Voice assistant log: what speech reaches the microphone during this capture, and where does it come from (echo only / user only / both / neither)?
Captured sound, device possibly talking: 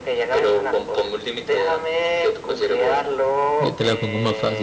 both